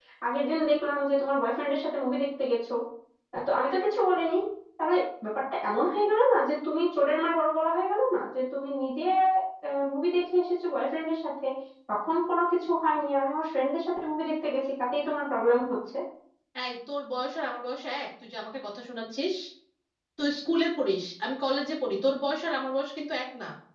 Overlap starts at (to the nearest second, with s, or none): none